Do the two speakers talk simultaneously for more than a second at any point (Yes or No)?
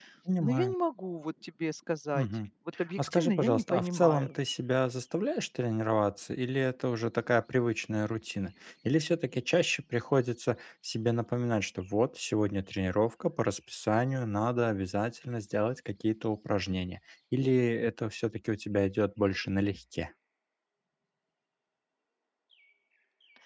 Yes